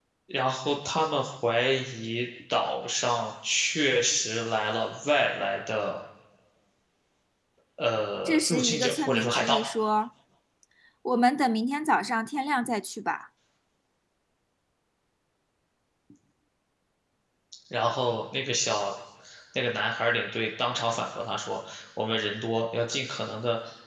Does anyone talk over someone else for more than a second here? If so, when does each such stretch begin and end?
8.2-9.6

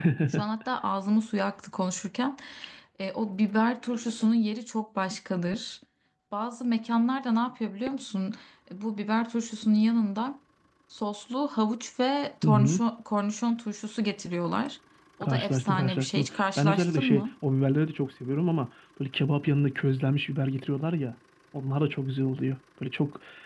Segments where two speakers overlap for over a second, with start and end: 15.2-17.3

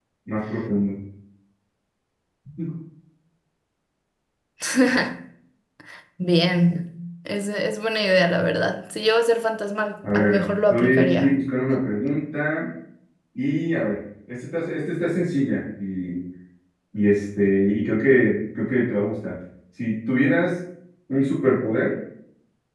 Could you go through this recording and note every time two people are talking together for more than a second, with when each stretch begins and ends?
10.1-11.4

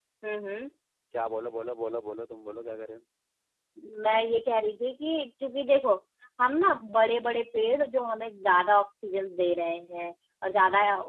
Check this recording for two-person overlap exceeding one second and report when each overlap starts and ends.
none

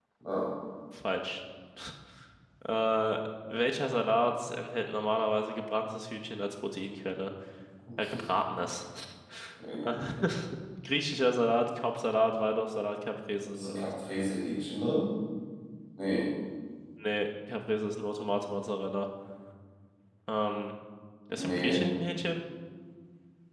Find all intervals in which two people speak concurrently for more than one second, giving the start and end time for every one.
none

